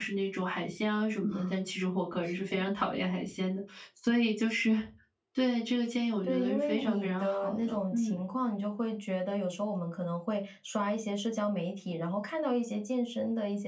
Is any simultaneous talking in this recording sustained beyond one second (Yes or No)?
Yes